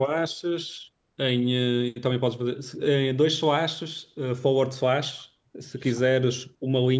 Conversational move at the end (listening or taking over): listening